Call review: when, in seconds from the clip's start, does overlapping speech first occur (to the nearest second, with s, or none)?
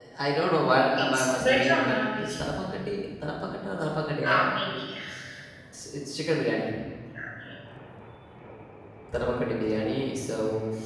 1 s